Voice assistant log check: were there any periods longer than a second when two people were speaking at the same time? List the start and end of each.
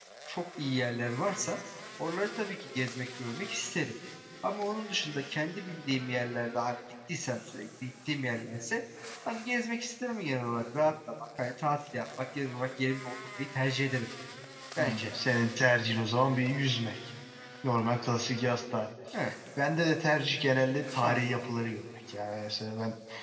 none

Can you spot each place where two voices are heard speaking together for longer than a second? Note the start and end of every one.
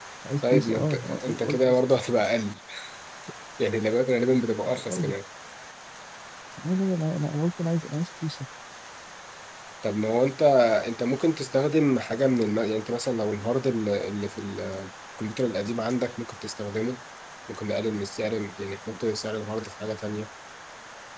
0.5-1.8

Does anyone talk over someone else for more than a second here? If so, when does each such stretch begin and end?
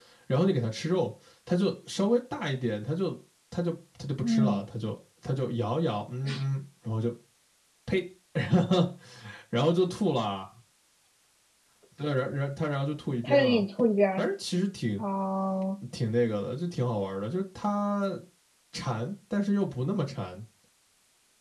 none

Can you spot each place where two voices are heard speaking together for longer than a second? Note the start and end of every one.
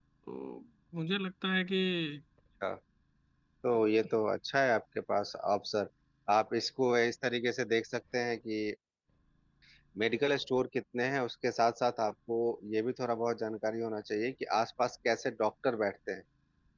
none

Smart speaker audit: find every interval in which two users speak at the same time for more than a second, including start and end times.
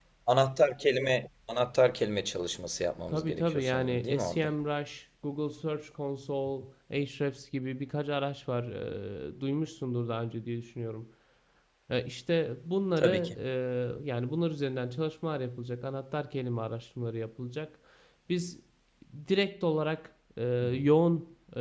3.1-4.5

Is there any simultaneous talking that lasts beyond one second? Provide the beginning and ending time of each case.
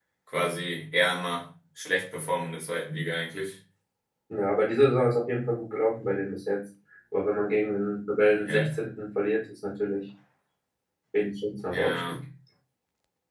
none

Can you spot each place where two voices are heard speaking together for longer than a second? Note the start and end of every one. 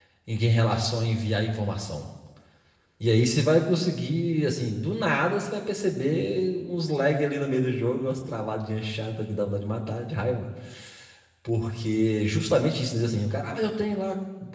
none

